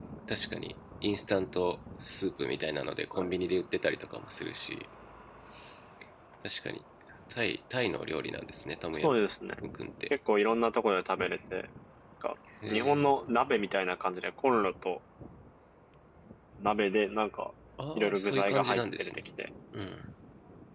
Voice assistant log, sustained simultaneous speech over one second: present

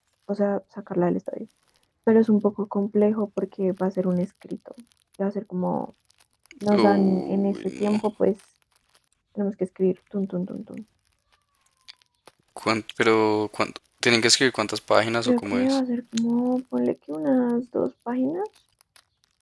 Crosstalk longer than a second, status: present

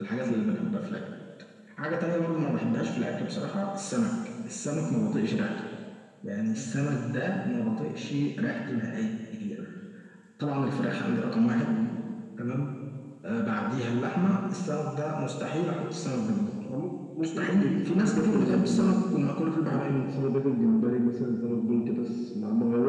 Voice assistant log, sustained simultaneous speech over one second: present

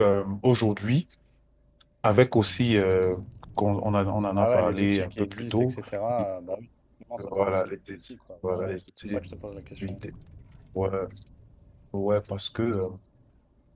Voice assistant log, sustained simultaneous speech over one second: present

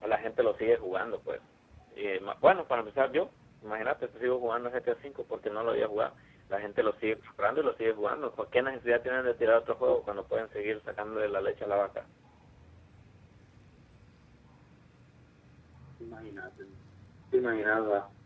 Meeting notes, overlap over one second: none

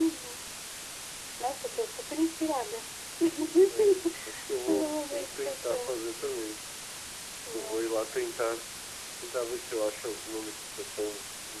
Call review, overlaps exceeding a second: present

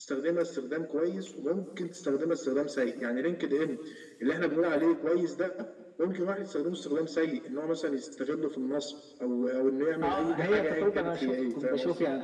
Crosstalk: present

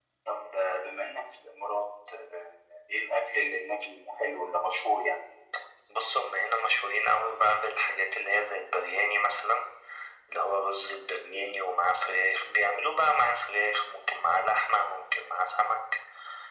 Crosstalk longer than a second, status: none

